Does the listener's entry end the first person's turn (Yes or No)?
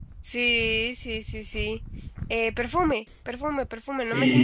Yes